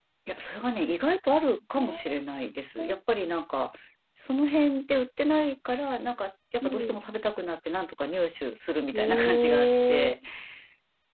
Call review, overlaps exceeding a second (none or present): present